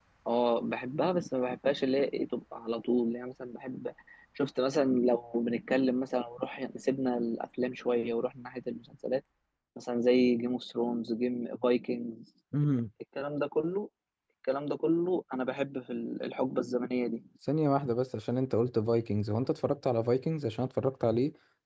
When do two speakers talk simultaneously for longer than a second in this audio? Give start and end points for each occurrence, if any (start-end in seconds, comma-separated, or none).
none